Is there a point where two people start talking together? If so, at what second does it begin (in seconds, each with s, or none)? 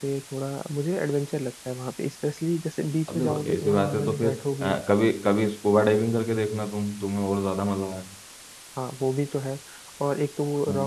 3.1 s